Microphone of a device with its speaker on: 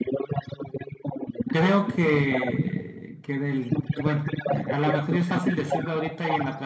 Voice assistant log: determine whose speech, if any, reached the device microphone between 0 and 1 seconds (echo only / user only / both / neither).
echo only